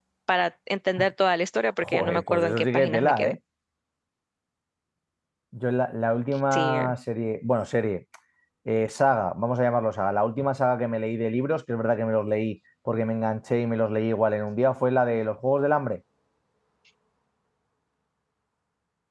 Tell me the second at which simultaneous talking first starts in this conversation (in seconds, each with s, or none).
1.8 s